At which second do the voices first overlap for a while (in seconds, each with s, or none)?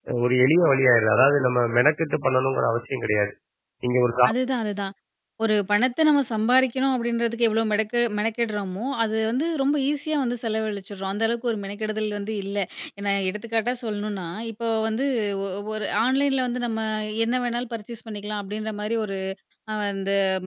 none